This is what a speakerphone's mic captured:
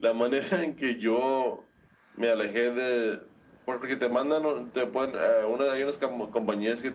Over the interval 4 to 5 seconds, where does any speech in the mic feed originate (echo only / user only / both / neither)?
echo only